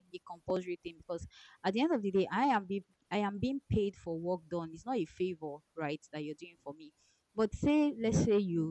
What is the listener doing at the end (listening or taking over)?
listening